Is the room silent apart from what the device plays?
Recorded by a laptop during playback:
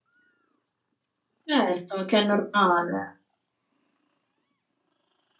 No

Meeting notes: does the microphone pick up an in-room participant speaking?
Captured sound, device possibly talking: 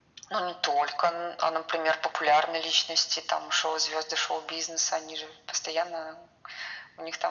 No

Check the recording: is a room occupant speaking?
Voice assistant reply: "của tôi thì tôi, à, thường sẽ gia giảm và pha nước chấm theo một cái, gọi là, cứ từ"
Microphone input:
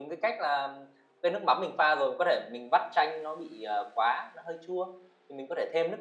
Yes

